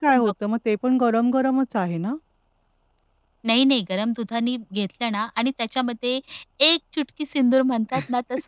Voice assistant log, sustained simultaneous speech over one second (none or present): none